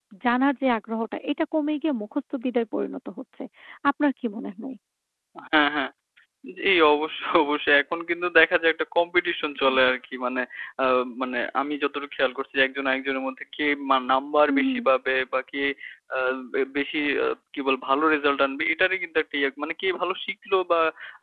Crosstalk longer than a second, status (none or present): none